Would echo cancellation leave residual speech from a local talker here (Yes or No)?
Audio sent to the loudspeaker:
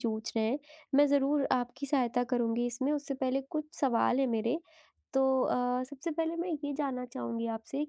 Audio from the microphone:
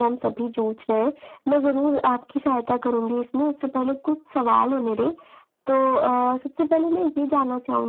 No